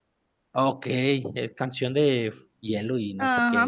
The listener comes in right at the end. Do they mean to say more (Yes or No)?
Yes